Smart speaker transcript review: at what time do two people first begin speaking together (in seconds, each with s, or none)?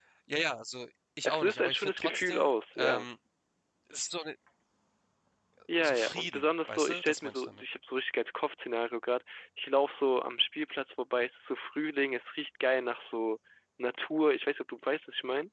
1.2 s